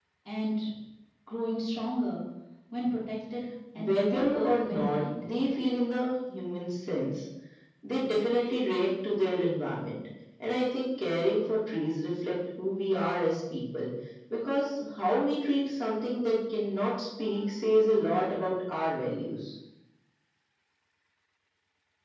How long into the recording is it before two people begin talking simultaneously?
3.8 s

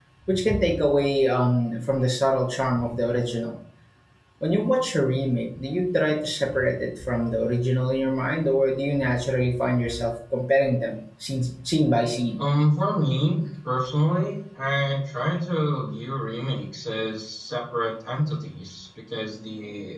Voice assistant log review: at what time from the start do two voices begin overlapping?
none

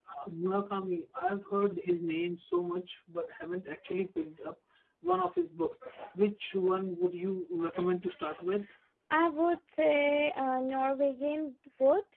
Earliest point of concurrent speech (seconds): none

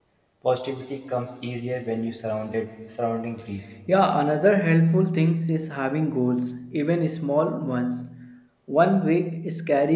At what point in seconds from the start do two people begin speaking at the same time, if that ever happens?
none

